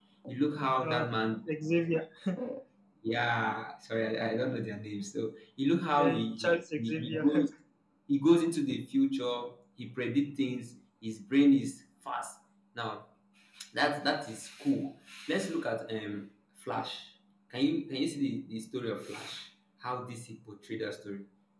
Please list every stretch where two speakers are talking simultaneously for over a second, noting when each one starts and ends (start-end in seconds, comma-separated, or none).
6.0-7.5